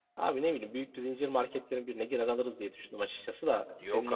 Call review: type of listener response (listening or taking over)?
taking over